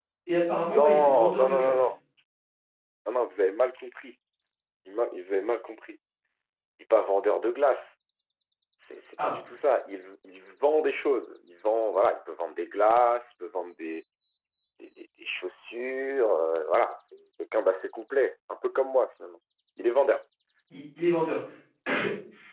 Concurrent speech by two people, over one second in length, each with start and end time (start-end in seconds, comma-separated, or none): 0.7-1.9